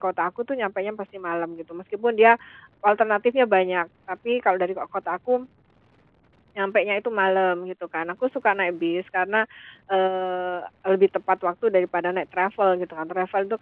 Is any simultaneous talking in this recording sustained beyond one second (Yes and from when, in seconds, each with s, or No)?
No